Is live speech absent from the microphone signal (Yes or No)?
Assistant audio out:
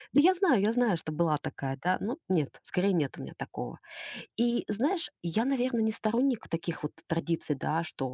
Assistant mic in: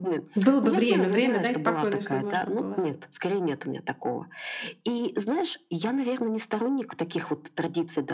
No